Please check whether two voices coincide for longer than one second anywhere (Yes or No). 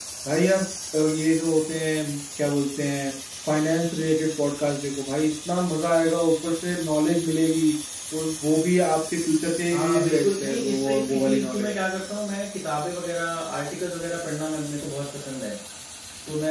Yes